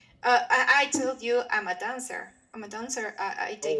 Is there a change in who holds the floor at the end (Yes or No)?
No